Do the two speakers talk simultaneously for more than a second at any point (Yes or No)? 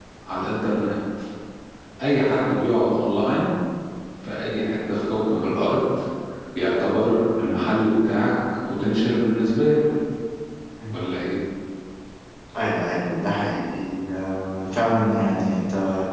No